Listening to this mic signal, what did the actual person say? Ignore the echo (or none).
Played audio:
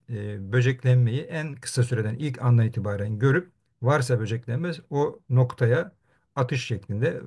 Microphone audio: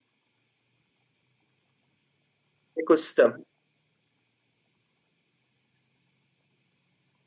Ekosistem.